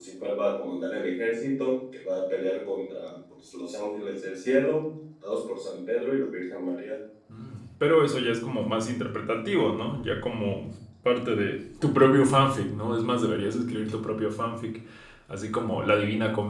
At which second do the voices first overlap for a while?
none

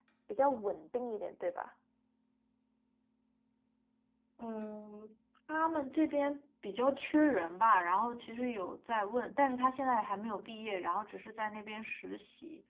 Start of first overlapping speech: none

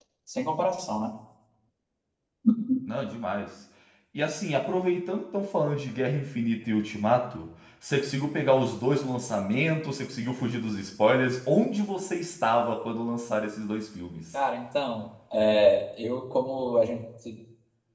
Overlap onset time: none

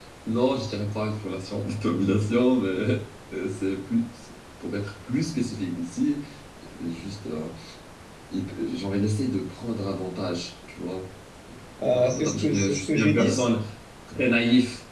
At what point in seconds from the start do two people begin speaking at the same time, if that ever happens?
11.8 s

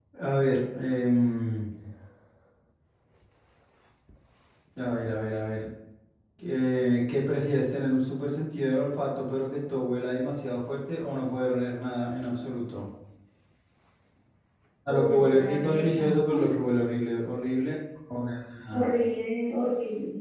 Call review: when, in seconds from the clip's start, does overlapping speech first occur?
14.9 s

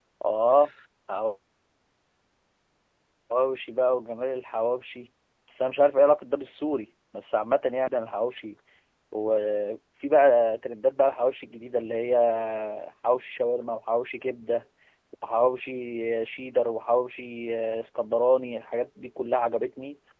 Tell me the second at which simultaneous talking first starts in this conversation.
none

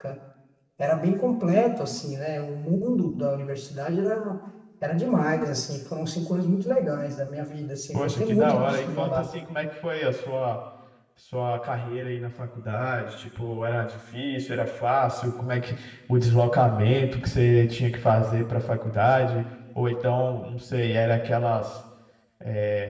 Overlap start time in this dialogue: 7.9 s

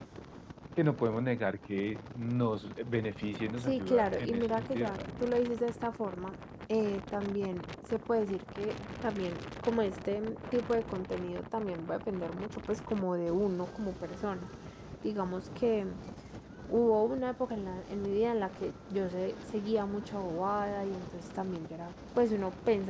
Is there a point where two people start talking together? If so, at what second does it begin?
3.6 s

